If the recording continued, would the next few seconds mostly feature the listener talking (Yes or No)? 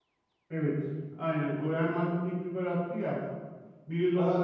No